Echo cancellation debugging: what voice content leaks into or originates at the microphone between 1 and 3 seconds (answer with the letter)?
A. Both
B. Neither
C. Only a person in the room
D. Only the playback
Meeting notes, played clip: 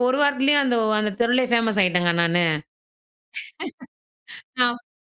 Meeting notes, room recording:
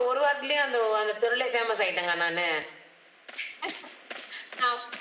D